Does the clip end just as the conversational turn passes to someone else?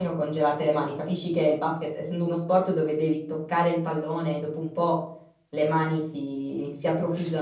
Yes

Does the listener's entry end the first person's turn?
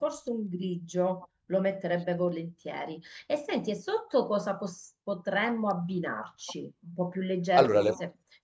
No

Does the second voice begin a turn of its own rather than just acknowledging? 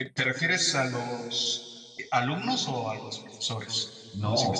Yes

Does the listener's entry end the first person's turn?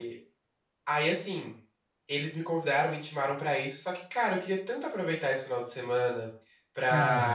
No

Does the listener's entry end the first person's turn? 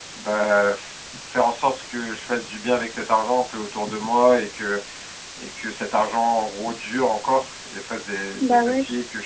No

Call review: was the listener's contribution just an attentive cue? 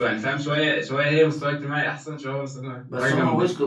No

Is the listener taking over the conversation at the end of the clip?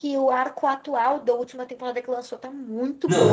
Yes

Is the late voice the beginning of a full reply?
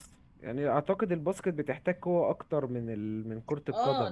Yes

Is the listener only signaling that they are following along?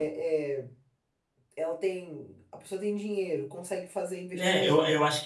No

